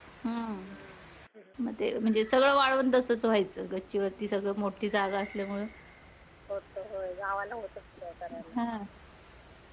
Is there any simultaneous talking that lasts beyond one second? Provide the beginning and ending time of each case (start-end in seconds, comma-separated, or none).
none